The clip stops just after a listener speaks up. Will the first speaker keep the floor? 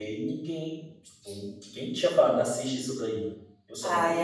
No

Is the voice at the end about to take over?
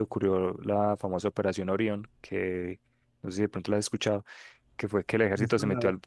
No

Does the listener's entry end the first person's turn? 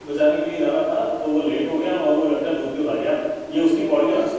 No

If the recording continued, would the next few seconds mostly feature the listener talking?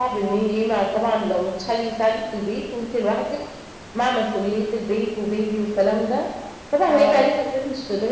No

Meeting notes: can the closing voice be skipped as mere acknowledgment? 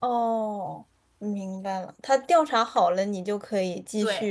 No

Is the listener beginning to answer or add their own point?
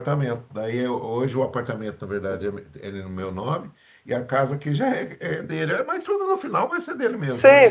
Yes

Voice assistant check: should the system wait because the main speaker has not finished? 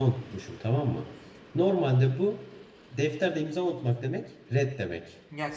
No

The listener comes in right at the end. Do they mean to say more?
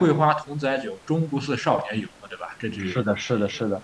Yes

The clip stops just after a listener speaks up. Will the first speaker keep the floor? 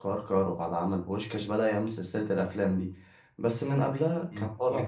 No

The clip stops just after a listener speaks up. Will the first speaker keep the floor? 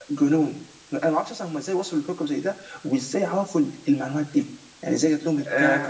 No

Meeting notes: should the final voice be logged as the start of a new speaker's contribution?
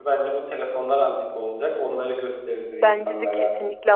Yes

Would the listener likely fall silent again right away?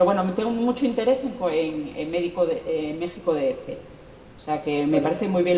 Yes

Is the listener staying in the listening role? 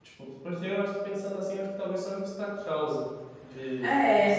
No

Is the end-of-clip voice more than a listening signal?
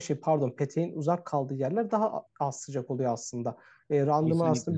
No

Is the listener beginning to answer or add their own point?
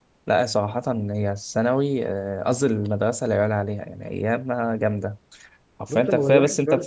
Yes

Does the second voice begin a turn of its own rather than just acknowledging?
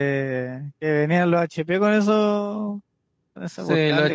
Yes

